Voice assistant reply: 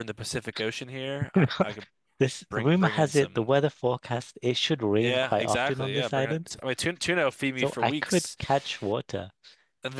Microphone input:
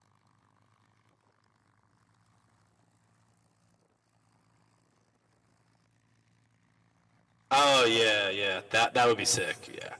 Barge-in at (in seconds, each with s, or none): 7.5 s